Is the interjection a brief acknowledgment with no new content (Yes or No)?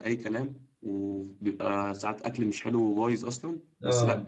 Yes